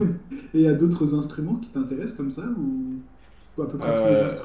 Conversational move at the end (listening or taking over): listening